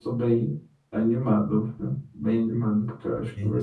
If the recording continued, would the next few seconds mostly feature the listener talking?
Yes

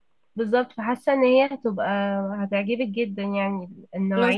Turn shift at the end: Yes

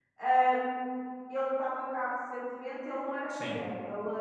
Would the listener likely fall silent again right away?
Yes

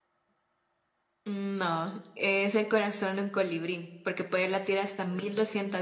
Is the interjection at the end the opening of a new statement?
No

